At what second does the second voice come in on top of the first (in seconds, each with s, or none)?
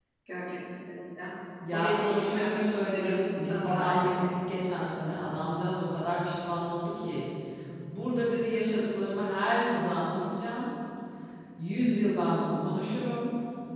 1.7 s